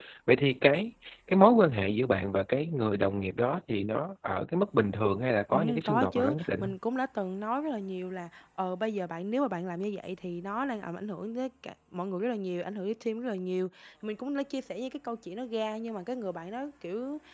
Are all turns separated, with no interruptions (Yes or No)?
No